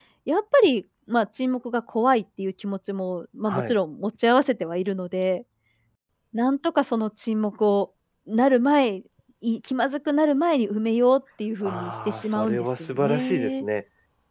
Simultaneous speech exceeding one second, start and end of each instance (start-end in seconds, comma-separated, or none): 11.6-13.6